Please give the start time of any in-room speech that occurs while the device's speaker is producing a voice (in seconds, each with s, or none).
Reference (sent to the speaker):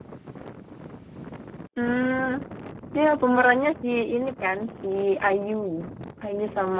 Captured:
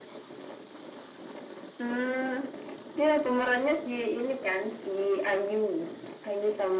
none